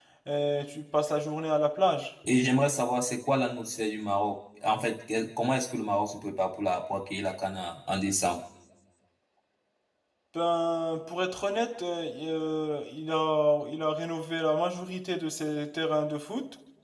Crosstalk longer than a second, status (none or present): none